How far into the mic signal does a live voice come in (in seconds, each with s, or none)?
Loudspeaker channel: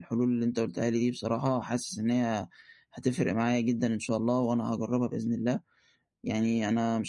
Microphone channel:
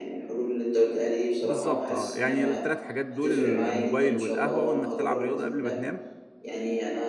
1.4 s